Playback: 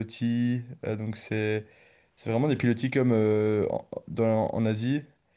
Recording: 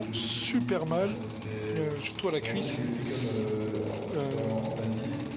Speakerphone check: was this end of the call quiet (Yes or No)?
No